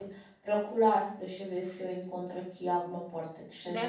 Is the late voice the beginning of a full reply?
Yes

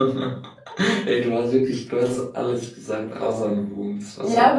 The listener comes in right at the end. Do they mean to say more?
Yes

